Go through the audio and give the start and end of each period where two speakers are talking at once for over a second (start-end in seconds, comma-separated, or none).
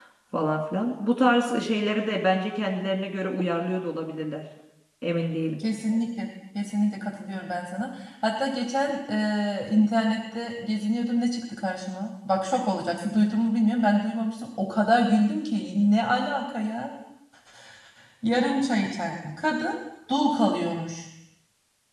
none